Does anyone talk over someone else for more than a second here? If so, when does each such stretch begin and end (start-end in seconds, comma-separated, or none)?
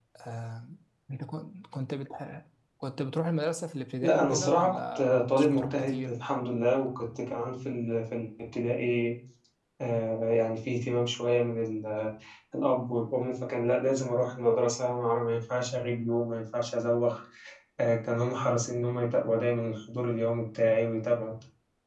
4.0-6.1